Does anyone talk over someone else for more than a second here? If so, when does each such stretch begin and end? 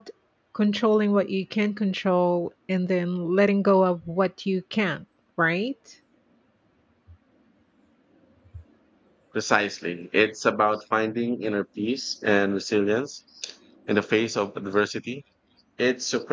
none

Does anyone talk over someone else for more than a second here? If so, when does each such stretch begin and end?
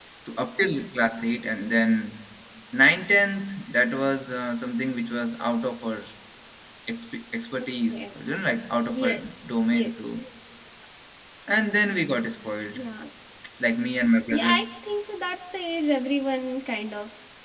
none

